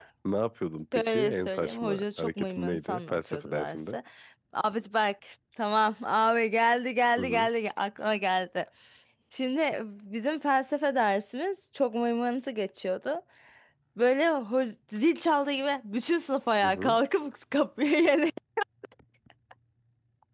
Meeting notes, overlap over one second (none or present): present